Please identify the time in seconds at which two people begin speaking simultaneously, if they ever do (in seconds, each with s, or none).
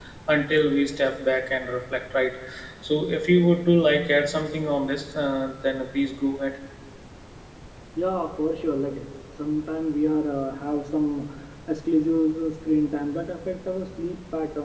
none